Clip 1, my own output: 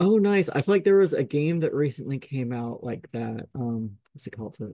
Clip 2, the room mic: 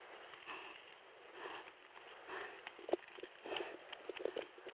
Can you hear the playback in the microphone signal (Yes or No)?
No